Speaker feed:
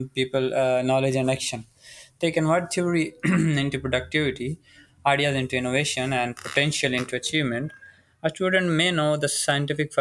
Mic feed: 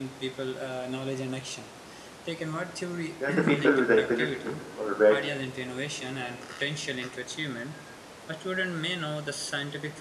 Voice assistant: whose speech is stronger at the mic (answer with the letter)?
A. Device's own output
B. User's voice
B